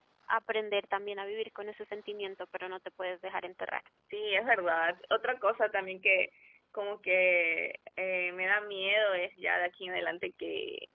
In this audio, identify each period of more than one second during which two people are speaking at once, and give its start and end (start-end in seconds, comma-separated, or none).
none